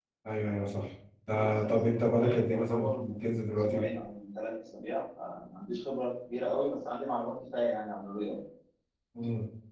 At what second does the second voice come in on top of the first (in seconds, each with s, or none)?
1.3 s